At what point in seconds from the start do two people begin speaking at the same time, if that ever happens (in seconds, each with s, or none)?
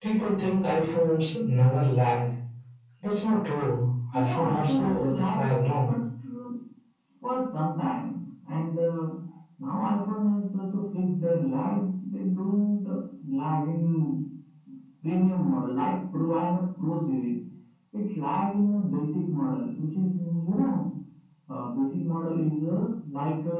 4.1 s